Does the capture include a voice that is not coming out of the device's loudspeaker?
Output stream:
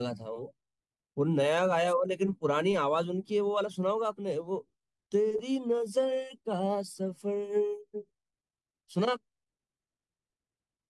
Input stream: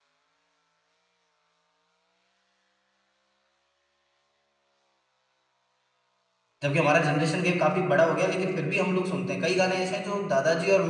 Yes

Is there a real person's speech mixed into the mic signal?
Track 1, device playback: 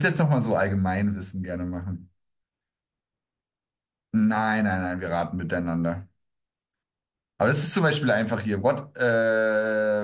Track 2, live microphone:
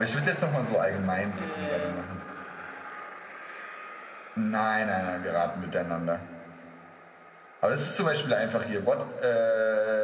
Yes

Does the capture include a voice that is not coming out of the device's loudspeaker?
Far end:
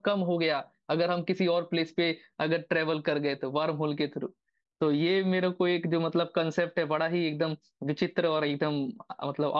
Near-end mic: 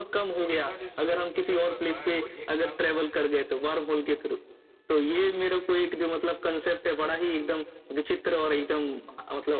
Yes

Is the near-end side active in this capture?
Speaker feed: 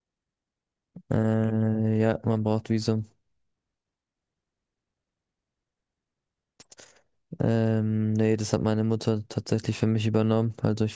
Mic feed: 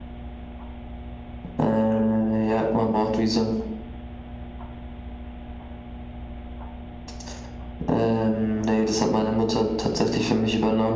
No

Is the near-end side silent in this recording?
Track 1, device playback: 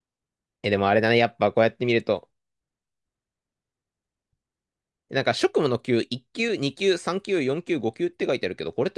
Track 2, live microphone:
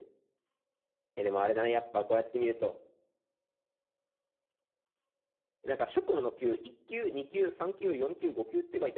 Yes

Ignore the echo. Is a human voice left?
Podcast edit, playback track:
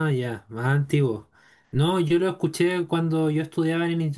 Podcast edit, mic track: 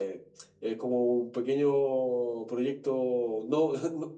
Yes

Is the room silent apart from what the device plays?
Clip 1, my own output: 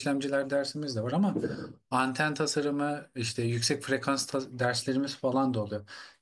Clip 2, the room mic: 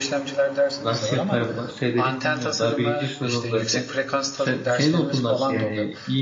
No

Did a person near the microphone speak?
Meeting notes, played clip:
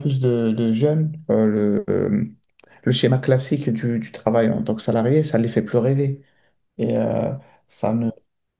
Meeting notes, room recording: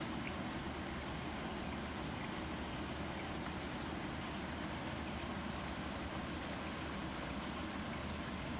No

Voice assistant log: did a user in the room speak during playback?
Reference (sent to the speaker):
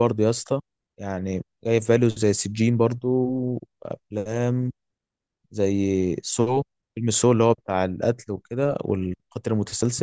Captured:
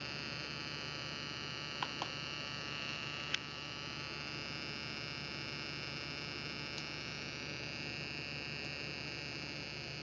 No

